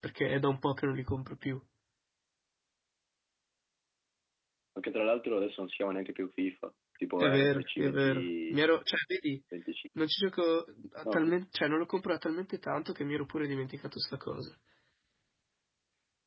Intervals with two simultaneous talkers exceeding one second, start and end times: 7.2-8.6

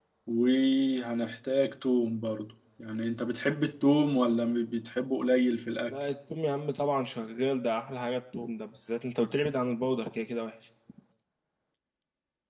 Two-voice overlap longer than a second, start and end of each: none

